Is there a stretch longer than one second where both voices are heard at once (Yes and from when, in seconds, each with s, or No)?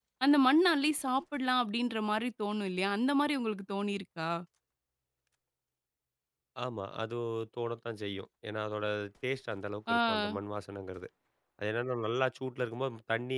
No